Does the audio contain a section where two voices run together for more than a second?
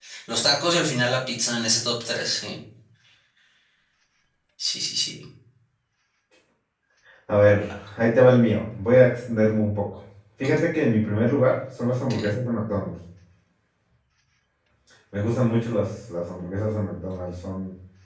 No

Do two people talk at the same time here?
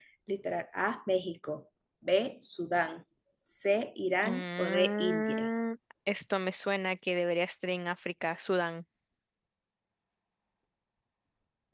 Yes, from 4.2 s

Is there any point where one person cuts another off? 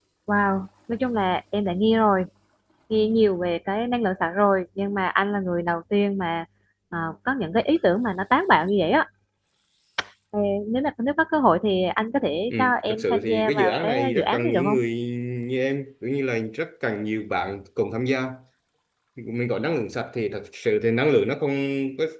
Yes, from 12.5 s

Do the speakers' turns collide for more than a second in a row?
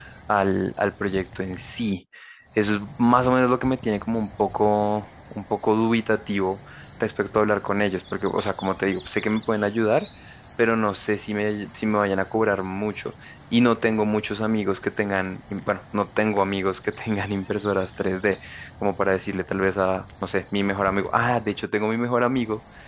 No

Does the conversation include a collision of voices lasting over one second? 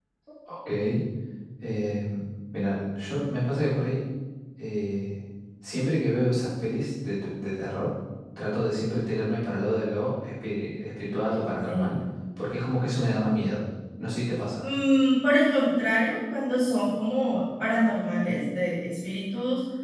No

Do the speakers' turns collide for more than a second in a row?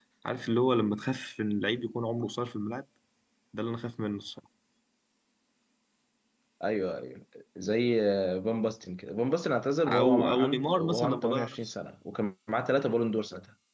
Yes, from 9.8 s

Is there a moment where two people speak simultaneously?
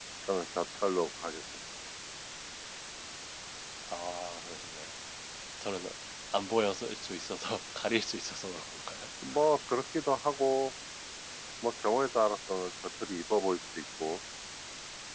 No

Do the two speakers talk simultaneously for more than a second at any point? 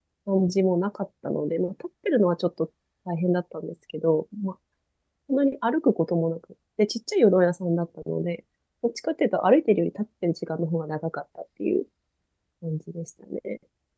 No

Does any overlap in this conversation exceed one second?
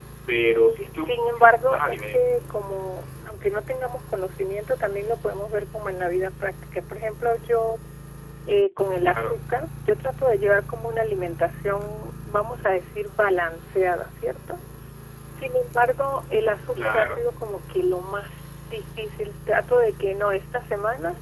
Yes, from 1.0 s

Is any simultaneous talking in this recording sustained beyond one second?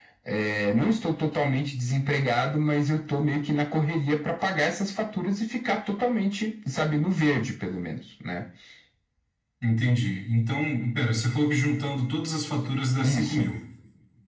No

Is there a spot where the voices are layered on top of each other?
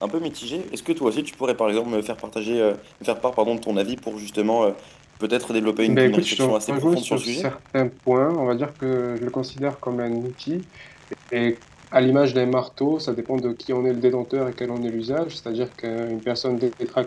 Yes, from 5.9 s

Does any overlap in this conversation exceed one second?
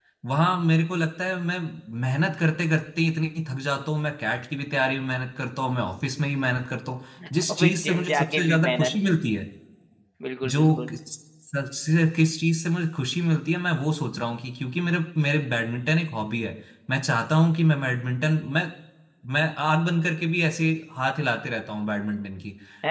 Yes, from 7.5 s

